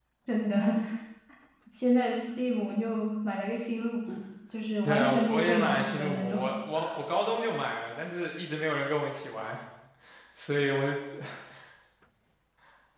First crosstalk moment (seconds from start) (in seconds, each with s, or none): 4.8 s